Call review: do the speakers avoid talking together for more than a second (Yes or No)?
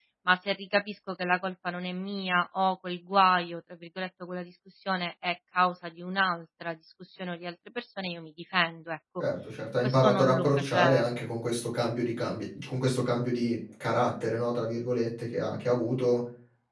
No